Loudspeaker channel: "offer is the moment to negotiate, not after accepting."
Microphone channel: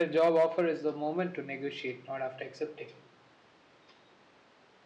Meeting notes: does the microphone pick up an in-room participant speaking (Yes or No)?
No